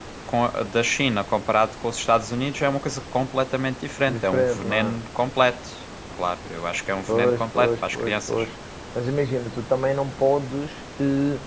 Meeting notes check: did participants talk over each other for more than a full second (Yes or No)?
Yes